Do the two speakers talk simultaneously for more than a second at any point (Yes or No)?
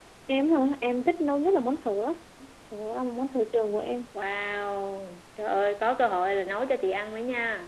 No